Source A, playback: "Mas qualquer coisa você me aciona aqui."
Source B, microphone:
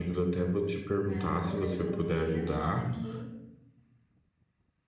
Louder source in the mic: user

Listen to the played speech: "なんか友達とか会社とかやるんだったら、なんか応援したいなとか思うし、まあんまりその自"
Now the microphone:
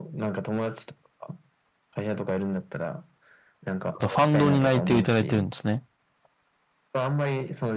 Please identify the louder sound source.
user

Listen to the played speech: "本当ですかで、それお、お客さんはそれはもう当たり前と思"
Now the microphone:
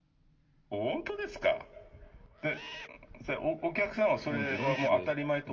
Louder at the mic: echo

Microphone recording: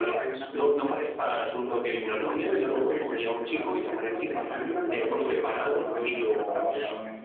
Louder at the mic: echo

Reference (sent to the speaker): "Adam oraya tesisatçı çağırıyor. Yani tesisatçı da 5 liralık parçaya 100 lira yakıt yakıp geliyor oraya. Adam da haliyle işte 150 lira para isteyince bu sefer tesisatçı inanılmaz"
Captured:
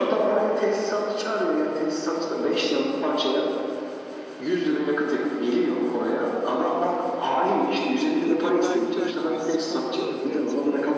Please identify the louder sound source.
echo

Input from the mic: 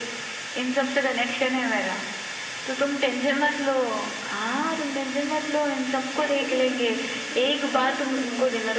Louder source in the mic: echo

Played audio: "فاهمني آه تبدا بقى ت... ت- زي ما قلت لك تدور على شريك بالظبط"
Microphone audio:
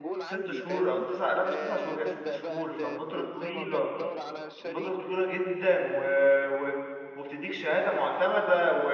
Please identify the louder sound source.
user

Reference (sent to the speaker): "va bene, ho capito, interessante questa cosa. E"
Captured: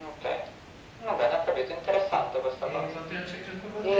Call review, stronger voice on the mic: echo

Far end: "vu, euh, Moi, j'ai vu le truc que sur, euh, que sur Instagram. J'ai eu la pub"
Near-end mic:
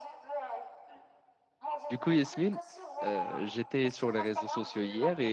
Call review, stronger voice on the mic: user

